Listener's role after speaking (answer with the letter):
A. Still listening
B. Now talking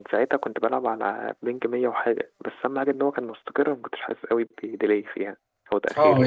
B